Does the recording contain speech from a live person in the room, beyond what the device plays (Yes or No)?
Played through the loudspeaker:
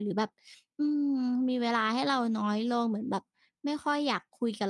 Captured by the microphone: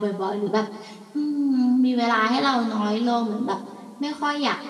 No